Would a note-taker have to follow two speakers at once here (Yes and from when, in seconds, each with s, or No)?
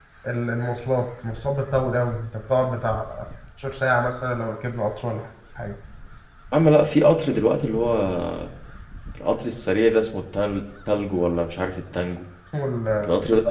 No